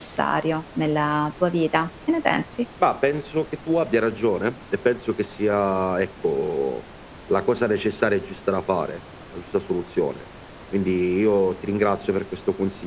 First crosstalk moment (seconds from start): none

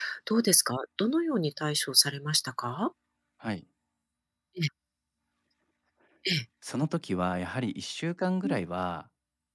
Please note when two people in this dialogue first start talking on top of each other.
none

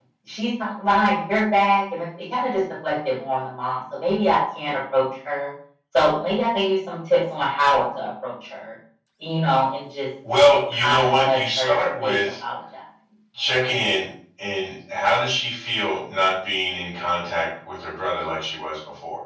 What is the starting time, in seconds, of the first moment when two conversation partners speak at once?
10.8 s

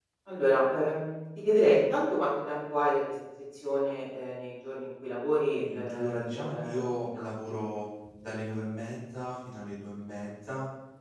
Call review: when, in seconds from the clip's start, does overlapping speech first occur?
5.6 s

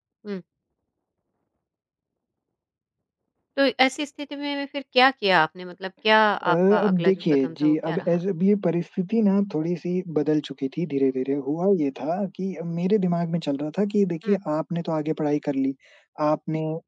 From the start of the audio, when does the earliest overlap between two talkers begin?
6.5 s

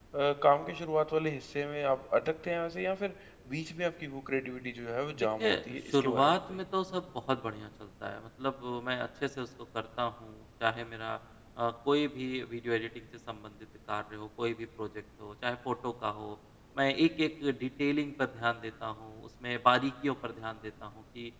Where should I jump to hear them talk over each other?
5.4 s

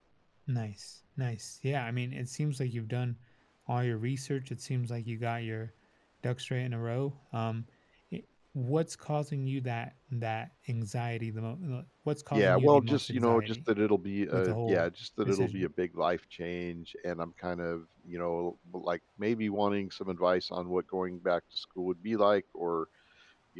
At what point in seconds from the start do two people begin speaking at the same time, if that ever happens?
12.3 s

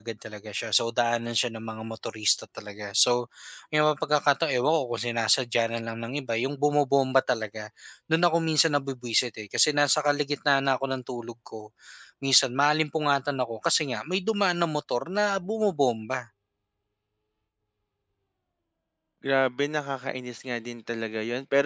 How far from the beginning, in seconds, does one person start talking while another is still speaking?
none

